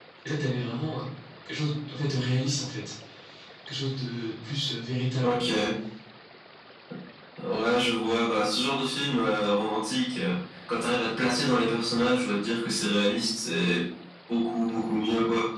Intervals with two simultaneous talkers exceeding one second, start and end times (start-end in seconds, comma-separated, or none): none